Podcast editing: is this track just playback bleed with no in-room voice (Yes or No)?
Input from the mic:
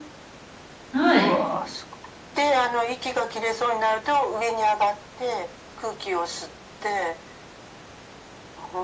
No